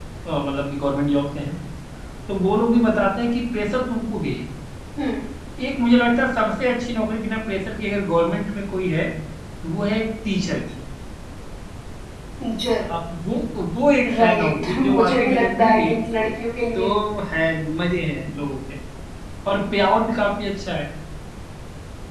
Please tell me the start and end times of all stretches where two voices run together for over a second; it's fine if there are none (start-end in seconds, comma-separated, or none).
14.1-16.0